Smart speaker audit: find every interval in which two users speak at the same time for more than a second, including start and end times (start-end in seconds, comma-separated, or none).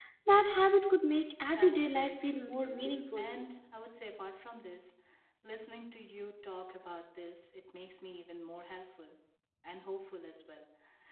1.6-2.8